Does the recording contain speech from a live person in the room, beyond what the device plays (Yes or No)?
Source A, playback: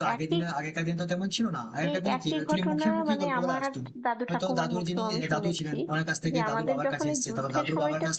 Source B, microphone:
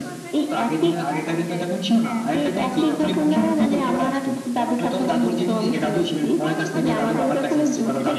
Yes